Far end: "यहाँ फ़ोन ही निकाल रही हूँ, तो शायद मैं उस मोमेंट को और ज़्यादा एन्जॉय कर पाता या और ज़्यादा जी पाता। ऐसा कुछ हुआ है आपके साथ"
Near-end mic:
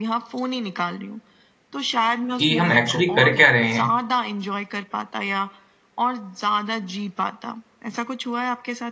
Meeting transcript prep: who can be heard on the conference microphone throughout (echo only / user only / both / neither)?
both